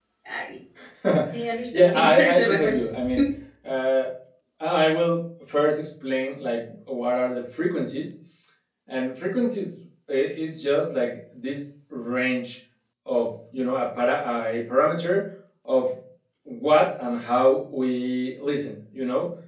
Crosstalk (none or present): present